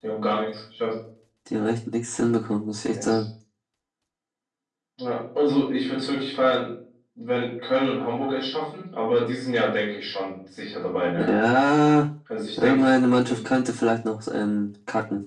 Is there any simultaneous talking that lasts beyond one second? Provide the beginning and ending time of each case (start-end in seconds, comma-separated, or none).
none